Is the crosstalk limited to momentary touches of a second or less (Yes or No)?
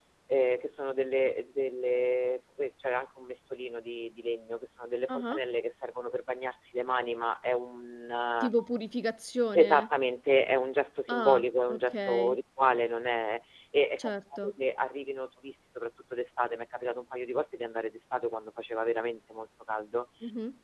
No